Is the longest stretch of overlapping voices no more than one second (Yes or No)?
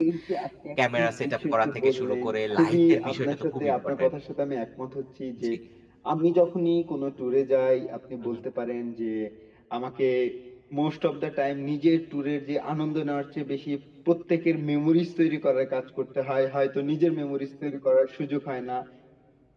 No